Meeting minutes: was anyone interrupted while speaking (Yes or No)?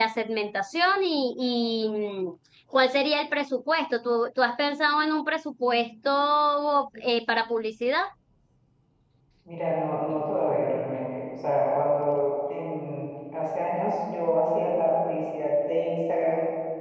No